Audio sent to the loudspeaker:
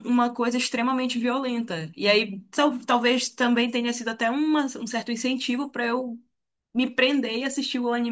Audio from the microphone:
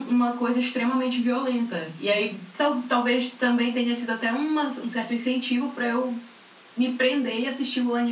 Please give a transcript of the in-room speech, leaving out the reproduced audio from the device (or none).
none